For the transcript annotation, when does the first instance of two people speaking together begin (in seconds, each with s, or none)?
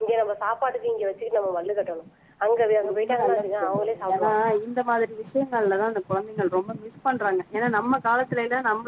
2.9 s